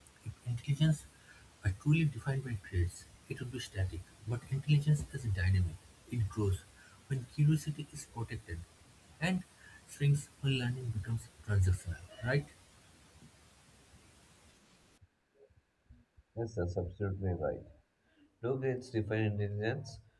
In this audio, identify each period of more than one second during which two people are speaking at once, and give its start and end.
none

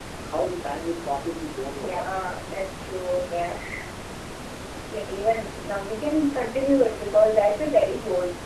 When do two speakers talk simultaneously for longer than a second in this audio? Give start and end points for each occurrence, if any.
none

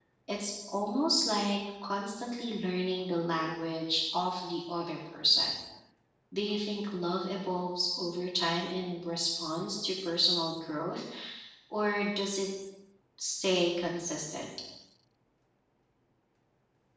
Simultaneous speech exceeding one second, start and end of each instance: none

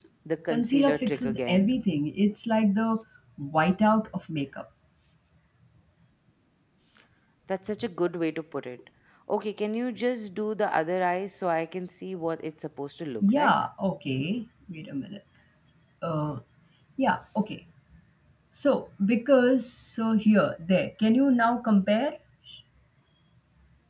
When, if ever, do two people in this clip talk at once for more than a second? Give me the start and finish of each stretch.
0.5-1.7

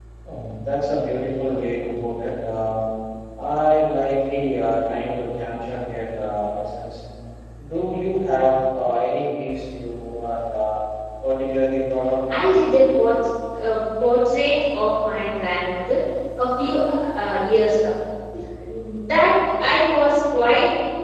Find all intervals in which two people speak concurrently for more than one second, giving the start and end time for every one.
none

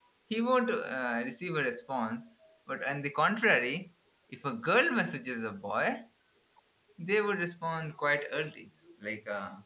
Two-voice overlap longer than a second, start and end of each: none

